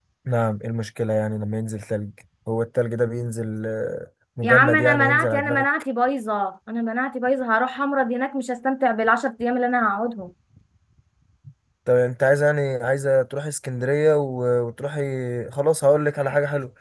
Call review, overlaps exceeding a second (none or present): present